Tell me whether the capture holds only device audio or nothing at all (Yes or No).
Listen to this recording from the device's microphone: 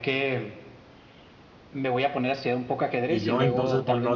No